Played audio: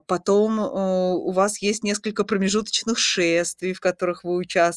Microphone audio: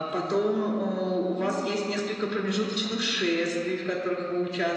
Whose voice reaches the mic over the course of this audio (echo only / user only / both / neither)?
both